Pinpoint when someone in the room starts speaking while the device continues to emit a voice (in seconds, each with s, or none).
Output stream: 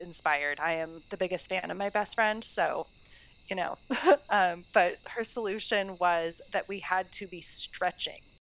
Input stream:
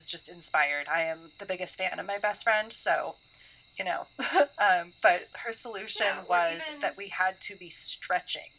5.9 s